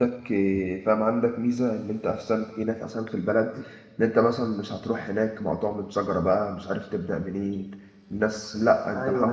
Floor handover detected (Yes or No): Yes